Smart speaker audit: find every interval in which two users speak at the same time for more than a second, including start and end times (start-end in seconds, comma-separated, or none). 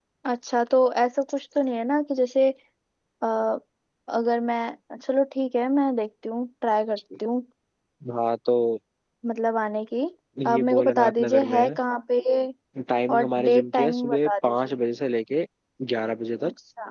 10.5-11.7, 13.1-14.8